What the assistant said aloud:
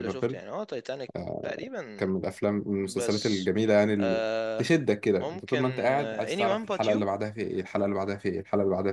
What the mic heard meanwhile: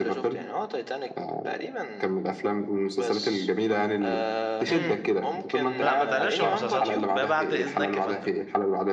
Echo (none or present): present